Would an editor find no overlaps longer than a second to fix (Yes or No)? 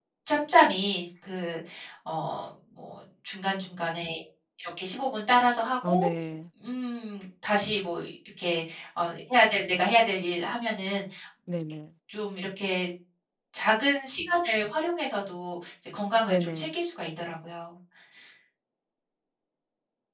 Yes